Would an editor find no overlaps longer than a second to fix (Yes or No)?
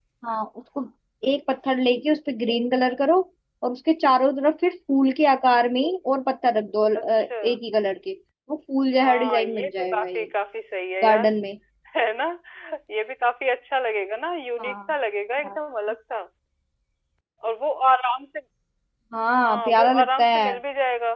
No